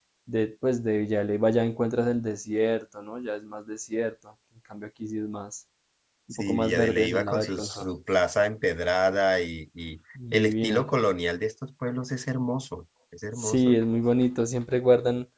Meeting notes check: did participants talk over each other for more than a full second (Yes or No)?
Yes